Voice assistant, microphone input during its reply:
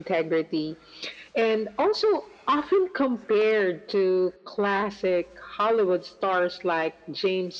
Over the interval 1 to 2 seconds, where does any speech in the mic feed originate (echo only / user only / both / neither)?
echo only